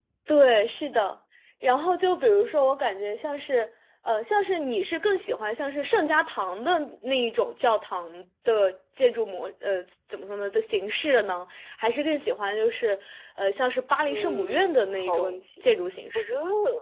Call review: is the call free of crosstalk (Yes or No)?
No